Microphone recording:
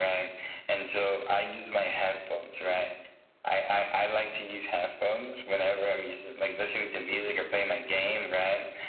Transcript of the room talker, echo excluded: none

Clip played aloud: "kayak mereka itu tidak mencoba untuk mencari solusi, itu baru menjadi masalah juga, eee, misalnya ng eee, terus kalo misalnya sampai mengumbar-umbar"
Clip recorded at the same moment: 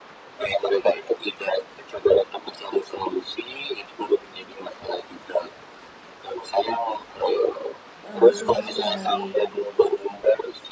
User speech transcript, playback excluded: eee, butuh masukan dari

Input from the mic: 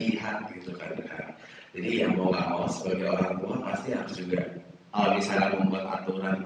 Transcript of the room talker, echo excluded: none

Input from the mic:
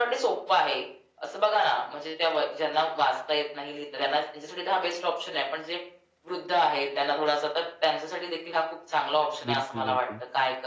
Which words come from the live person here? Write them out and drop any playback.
बिलकुल, बिलकुल.

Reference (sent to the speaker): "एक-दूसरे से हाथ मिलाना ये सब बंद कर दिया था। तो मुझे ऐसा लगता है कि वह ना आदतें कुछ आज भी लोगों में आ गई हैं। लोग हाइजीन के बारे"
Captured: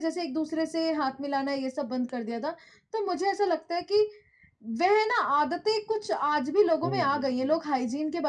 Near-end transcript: हुँ, हुँ, हुँ।

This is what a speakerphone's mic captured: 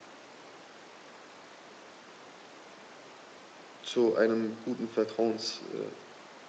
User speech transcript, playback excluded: zu einem guten Vertrauens äh,

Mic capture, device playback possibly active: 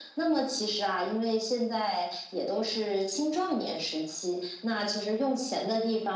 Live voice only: none

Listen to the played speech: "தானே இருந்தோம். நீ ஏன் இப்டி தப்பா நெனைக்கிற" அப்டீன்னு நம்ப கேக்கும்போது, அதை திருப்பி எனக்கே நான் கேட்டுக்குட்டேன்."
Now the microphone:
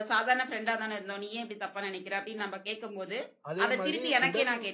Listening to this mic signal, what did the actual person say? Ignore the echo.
அதே மாதிரி உடல்,

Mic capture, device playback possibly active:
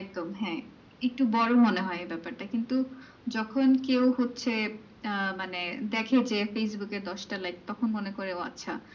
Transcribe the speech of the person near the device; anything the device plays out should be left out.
none

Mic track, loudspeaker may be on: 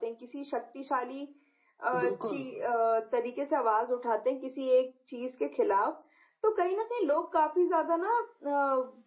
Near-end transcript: बिल्कुल।

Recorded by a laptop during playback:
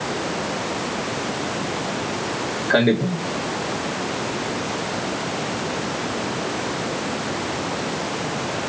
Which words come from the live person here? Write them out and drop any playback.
கண்டிப்பா.

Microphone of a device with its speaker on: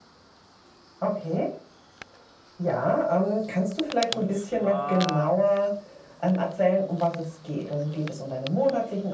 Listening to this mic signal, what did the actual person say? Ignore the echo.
und zwar

